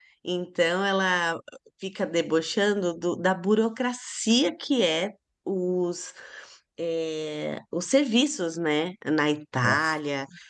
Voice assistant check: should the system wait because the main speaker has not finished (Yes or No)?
Yes